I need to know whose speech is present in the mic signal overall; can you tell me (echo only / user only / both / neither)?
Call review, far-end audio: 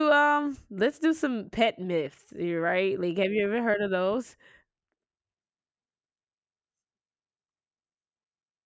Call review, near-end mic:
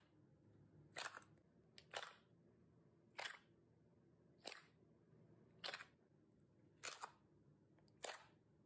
neither